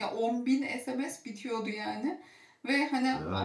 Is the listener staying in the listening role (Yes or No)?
Yes